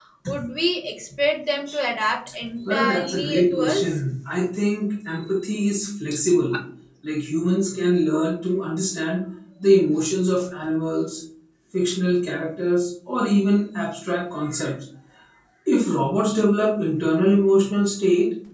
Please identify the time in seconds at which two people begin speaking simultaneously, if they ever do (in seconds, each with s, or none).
2.7 s